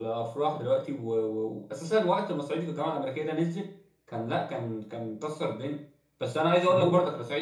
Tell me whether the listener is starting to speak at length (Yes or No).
No